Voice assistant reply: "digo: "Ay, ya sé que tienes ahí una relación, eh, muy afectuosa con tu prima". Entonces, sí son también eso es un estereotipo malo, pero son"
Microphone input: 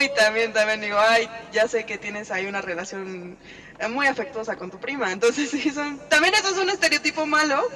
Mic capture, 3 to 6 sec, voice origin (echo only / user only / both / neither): echo only